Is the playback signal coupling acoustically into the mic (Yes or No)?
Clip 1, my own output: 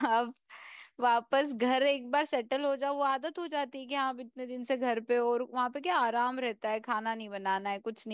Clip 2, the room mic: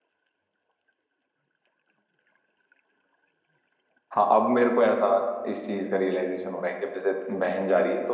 No